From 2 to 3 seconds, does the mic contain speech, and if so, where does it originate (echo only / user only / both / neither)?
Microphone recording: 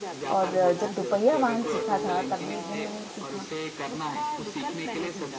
both